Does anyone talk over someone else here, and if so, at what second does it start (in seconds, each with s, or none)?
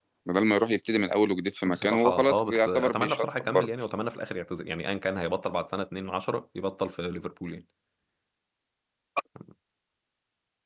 1.7 s